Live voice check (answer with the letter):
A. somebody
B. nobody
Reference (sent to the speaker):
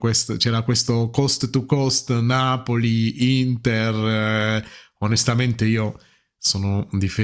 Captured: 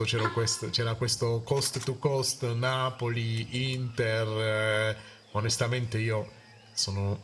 B